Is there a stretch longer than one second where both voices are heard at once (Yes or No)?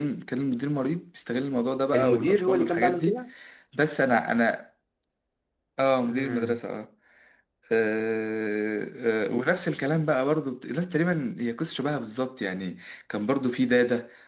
Yes